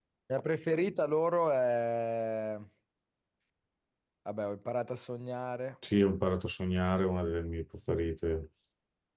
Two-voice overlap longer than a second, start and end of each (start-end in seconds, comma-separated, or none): none